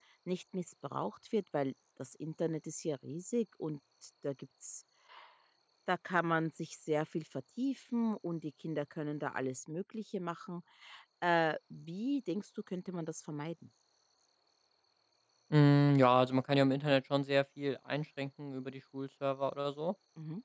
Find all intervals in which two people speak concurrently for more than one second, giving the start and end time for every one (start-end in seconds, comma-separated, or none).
none